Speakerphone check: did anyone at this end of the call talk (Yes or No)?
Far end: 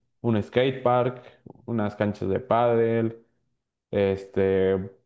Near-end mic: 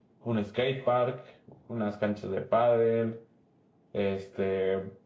No